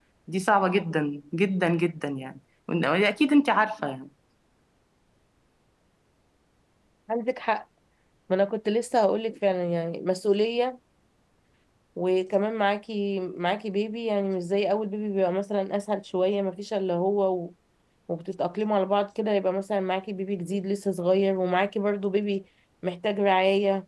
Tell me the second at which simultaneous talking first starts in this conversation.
none

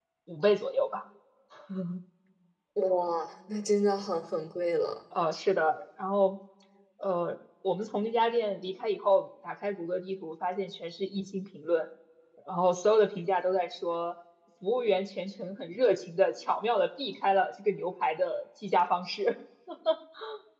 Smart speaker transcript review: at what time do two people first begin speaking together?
none

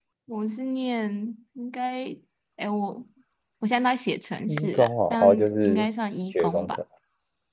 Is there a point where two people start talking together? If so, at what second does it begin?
4 s

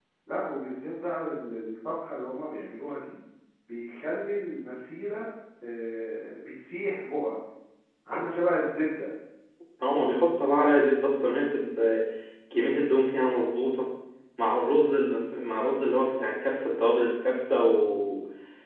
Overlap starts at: none

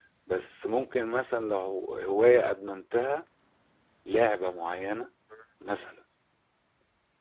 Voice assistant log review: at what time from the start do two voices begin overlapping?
none

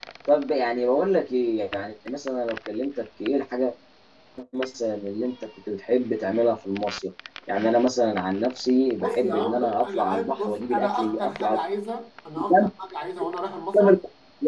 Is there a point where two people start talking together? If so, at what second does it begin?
9 s

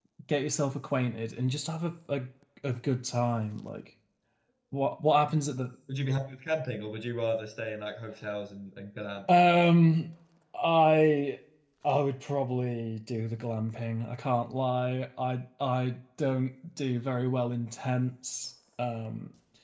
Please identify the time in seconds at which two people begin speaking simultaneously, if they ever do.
none

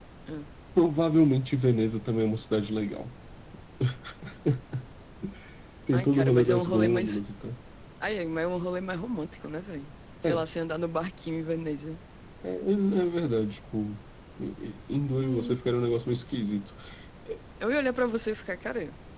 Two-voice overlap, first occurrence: 6 s

